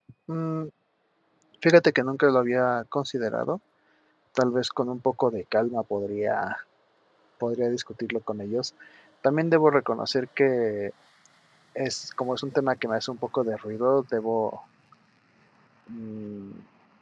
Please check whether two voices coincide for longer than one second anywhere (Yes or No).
No